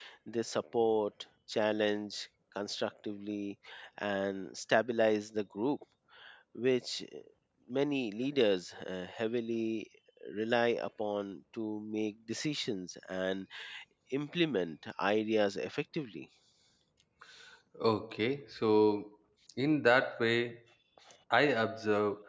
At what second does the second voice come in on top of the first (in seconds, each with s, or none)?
none